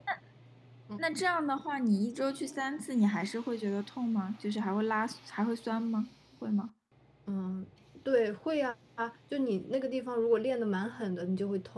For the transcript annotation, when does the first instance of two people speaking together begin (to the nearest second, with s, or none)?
none